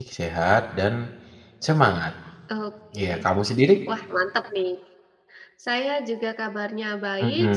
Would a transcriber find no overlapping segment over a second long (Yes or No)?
Yes